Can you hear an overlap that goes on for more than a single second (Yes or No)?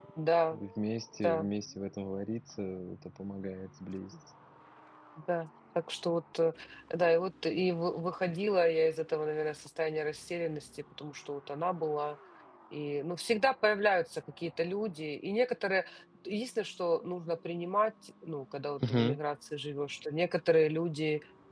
No